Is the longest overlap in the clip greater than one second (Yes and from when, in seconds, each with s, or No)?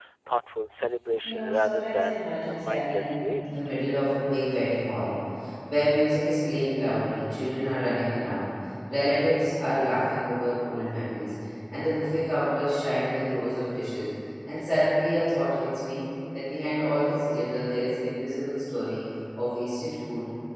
Yes, from 1.2 s